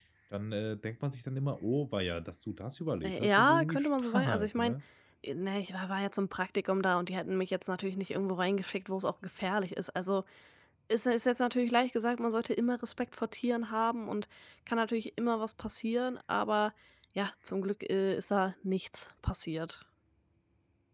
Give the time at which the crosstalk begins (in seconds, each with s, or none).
3.0 s